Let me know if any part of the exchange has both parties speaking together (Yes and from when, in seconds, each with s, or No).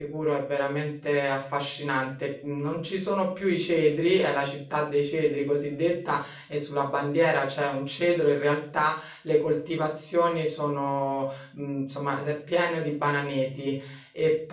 No